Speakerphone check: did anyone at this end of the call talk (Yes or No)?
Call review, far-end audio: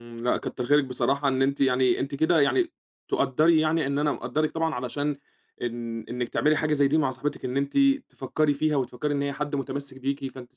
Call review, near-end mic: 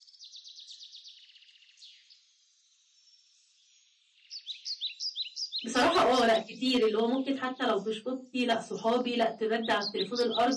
Yes